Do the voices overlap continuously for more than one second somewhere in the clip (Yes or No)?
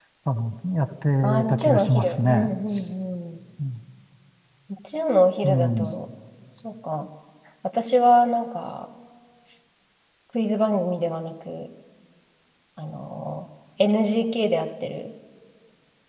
Yes